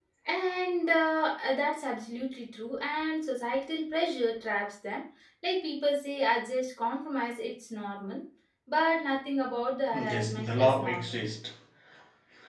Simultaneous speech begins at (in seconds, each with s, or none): 9.9 s